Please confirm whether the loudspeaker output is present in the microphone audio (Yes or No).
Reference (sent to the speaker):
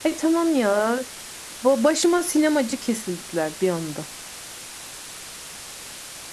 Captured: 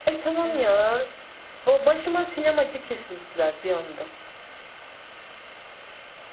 Yes